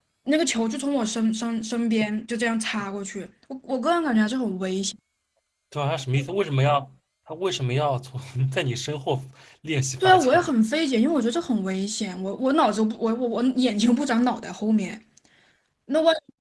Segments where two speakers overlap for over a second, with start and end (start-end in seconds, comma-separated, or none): none